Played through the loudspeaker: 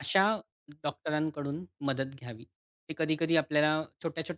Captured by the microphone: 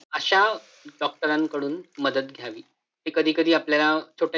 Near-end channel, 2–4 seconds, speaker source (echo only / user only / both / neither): echo only